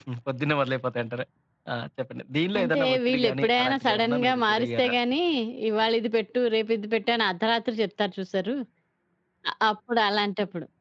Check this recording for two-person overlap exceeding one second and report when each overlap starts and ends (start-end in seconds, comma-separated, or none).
2.6-4.9